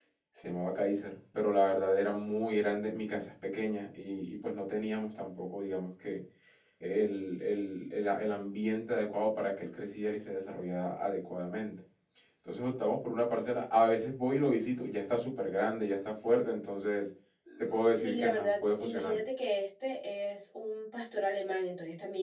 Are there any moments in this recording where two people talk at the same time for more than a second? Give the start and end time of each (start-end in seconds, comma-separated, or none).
17.9-19.2